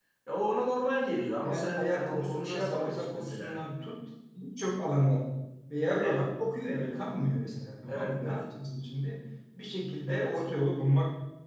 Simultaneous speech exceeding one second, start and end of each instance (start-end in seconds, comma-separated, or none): 1.4-3.6